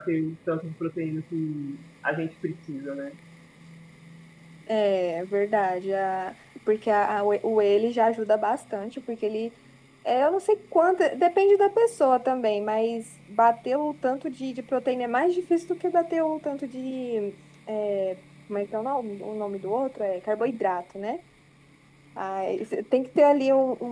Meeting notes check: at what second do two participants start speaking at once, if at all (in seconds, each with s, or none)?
none